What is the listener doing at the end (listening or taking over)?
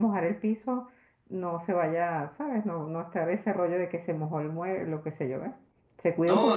taking over